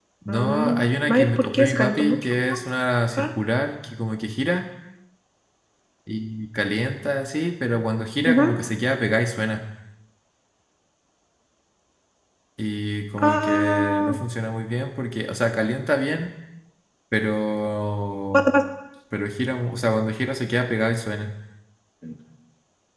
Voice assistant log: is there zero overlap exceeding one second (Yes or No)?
No